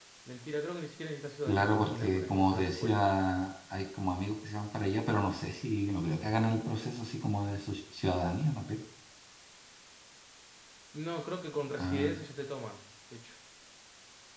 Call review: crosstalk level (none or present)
present